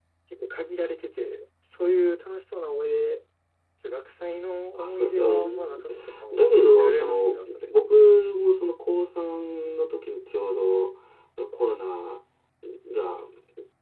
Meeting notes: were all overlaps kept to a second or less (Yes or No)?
No